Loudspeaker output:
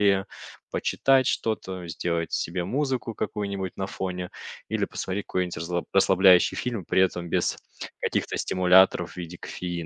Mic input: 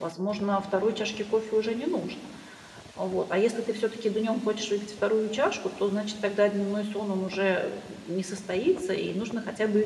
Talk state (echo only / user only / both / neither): user only